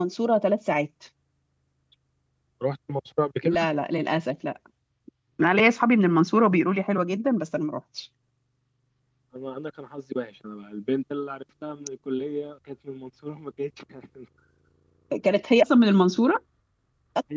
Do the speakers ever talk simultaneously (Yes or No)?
No